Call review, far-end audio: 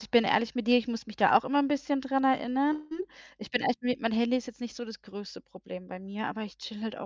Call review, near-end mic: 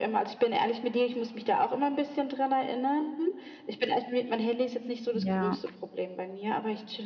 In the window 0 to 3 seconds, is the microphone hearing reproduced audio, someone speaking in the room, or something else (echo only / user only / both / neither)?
echo only